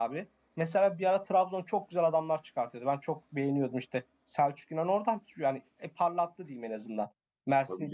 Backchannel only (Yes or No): Yes